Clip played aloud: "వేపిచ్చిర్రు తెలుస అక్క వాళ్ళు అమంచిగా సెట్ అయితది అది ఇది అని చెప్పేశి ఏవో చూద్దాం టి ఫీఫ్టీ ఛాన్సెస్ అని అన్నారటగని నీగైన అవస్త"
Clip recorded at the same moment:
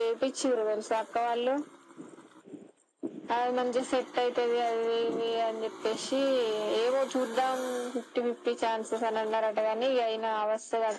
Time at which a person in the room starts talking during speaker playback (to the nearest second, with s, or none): none